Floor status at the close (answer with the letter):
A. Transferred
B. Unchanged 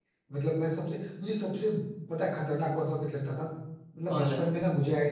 B